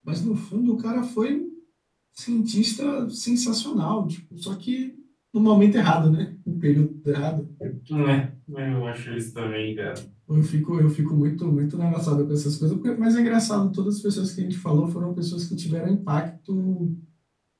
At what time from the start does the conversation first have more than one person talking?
none

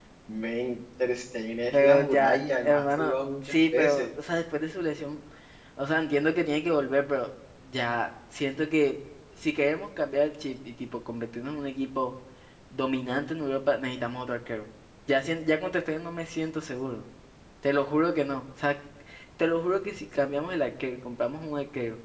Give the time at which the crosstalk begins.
1.7 s

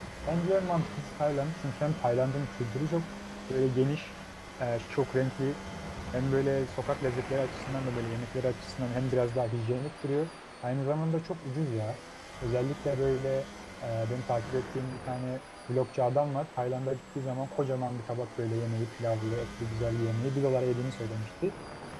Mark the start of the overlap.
none

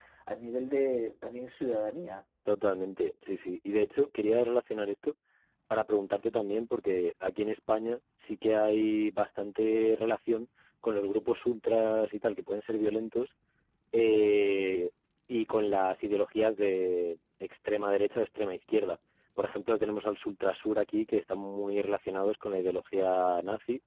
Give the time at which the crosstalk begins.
none

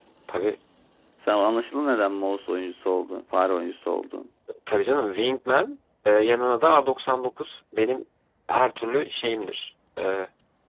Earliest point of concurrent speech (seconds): none

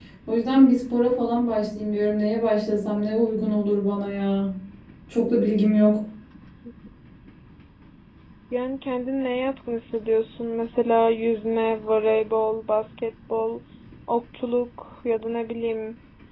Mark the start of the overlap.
none

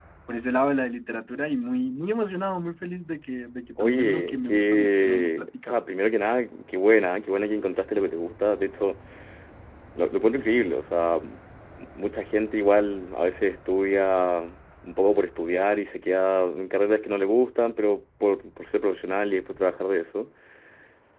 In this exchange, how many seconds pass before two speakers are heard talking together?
3.8 s

